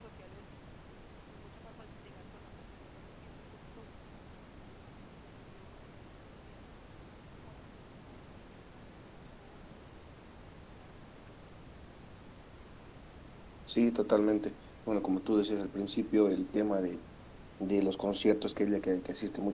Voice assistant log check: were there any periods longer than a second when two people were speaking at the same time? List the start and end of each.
none

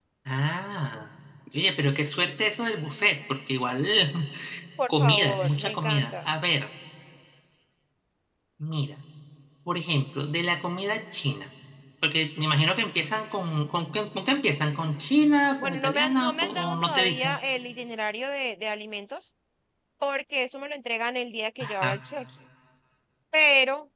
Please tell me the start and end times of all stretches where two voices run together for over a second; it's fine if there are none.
4.9-6.1, 15.6-17.4

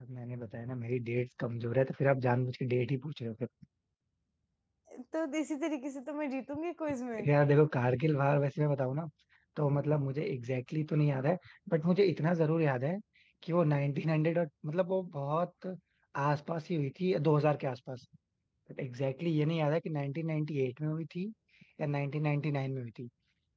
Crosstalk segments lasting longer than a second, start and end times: none

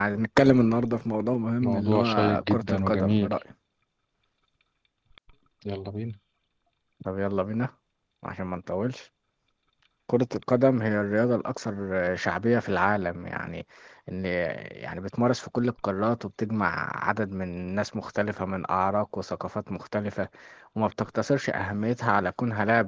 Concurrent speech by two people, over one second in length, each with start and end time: 1.6-3.3

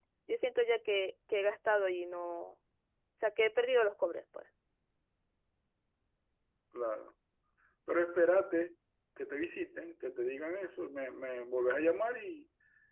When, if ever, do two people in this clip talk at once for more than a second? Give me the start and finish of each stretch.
none

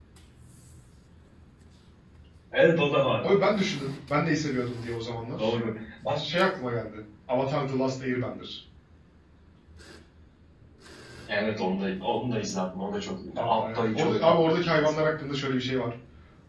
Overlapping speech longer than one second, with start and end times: 13.4-15.1

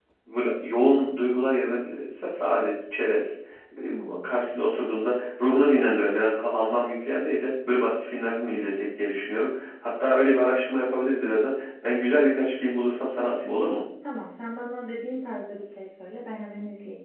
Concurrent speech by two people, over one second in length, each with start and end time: none

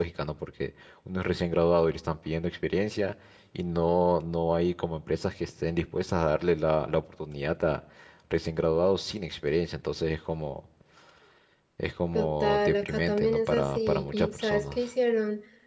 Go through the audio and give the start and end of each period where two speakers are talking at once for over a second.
12.1-14.8

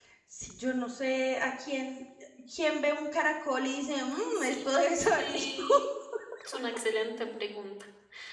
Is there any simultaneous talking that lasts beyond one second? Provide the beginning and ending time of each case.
4.1-5.6

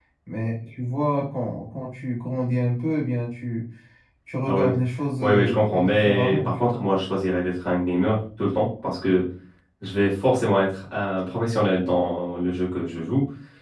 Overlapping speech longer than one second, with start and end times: 5.2-6.8

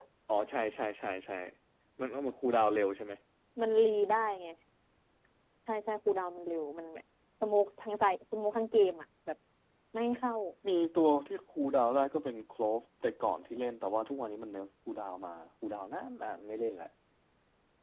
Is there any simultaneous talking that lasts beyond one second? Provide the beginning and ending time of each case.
none

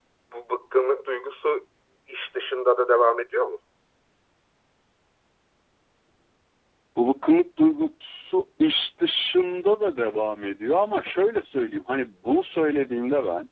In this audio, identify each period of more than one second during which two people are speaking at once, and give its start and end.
none

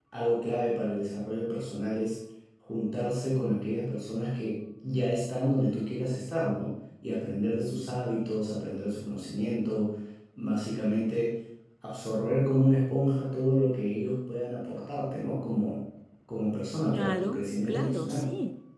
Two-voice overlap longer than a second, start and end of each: 16.9-18.3

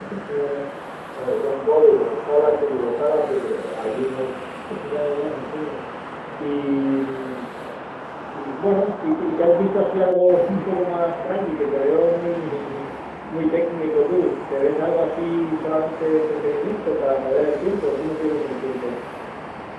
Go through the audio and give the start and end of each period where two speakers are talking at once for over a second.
none

